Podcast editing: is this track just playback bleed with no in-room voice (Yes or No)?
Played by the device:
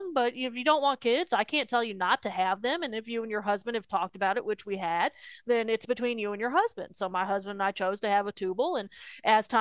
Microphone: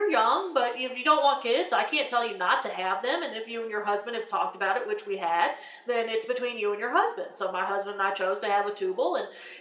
Yes